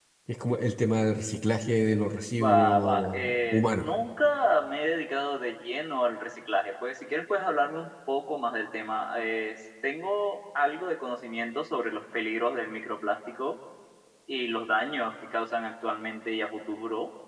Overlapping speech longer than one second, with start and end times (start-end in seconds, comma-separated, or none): 2.4-3.9